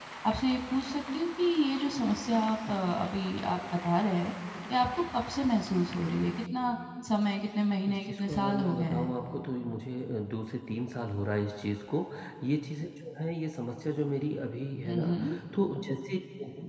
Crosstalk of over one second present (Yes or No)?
Yes